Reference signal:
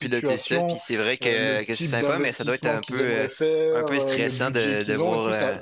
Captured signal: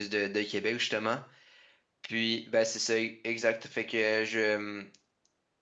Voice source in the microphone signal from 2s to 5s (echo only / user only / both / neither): user only